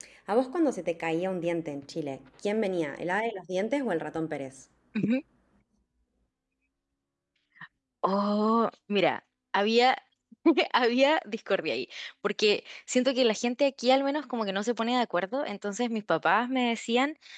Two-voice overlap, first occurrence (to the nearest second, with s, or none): none